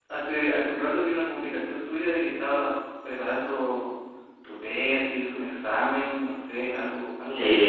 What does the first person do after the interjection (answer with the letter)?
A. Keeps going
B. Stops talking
B